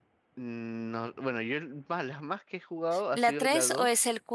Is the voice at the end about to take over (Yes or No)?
Yes